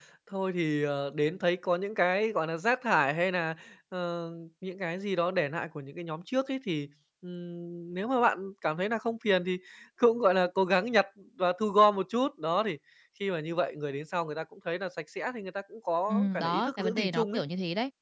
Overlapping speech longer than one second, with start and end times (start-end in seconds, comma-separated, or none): 16.1-17.4